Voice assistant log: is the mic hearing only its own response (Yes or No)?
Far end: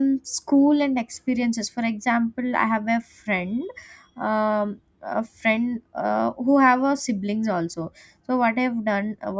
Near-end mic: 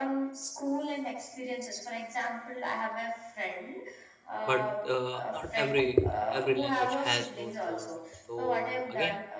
No